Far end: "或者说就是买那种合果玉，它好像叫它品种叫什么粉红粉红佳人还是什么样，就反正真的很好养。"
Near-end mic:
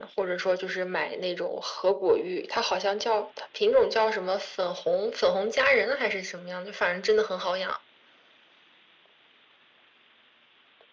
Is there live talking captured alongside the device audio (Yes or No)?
No